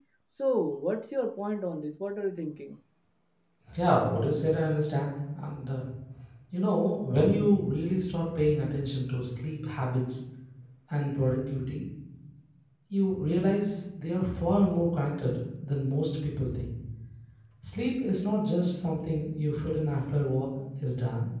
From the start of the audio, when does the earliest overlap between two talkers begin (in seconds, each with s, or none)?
none